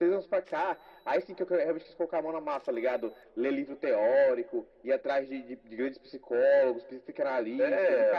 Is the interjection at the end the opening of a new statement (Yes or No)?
Yes